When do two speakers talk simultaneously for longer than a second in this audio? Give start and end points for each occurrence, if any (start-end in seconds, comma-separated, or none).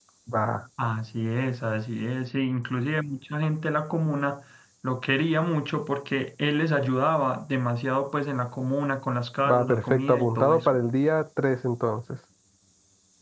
9.5-10.8